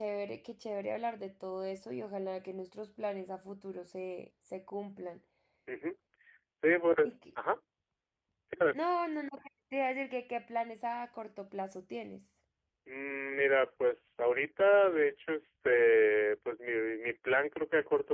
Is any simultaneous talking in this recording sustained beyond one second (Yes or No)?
No